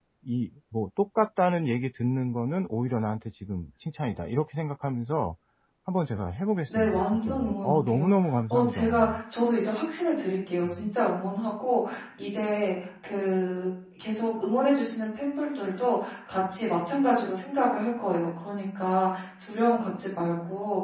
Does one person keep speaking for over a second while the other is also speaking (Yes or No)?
Yes